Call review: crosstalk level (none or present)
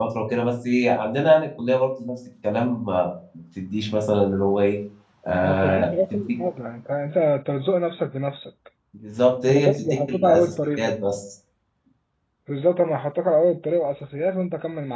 present